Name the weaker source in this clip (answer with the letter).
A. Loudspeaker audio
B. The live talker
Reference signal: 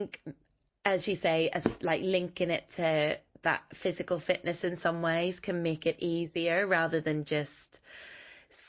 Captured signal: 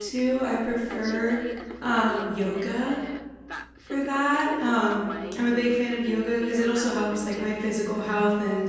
A